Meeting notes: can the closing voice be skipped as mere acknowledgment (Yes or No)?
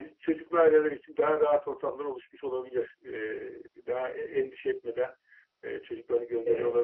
Yes